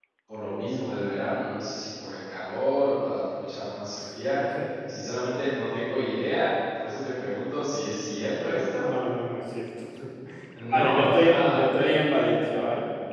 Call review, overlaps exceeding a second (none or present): present